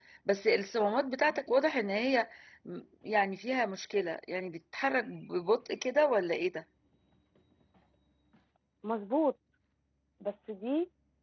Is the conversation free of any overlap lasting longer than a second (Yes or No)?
Yes